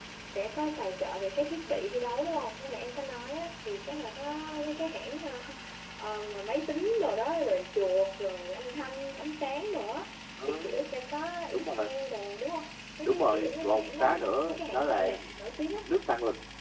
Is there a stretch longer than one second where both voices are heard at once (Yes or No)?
Yes